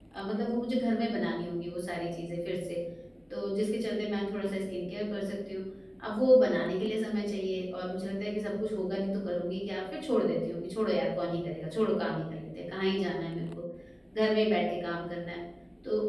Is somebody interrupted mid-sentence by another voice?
No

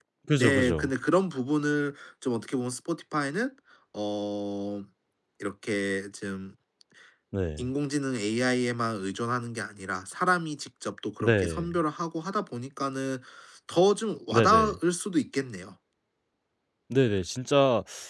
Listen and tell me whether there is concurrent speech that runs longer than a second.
No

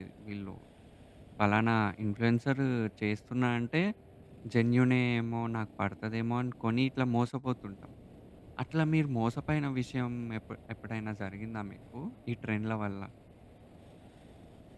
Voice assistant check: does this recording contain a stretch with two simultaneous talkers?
No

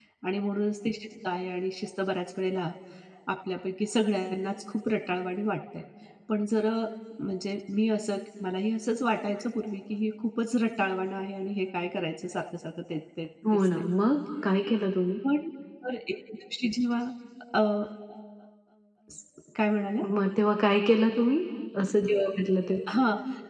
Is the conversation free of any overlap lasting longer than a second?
Yes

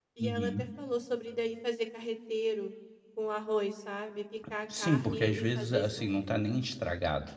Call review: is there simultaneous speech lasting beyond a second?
Yes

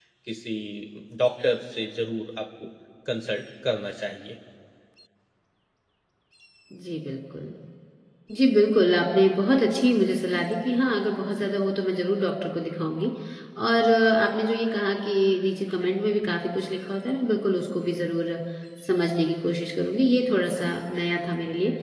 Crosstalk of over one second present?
No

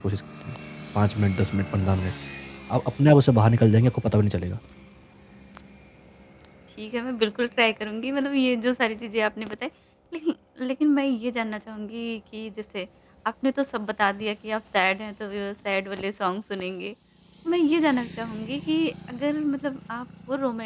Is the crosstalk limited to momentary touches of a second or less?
Yes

